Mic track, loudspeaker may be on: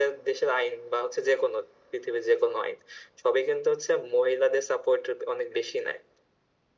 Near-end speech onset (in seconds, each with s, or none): none